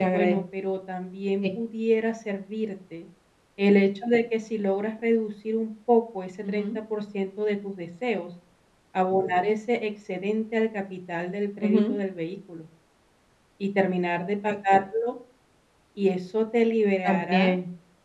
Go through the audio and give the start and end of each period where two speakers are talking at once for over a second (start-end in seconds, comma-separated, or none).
none